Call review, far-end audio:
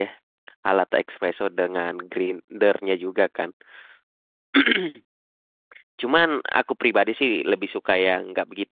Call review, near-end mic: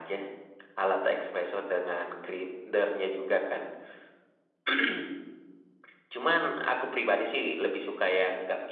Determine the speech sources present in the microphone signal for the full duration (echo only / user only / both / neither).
echo only